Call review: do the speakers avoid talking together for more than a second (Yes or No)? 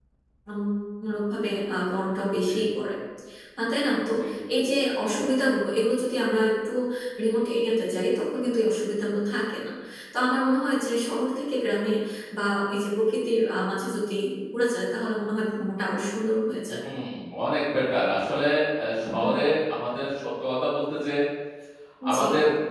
Yes